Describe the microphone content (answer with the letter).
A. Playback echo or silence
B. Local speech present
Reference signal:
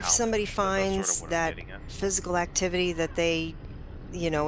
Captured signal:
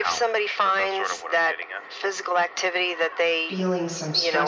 B